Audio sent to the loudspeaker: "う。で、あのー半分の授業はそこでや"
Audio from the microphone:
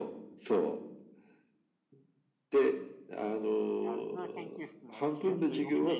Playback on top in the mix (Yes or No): Yes